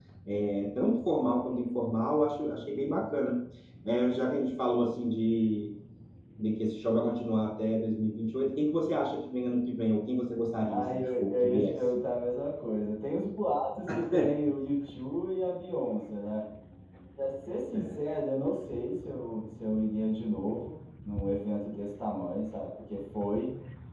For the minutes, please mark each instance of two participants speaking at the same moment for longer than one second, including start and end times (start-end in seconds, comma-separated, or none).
10.7-11.9